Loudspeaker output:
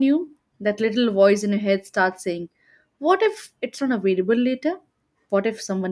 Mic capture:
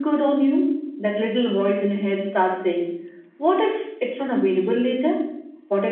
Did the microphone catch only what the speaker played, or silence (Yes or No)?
Yes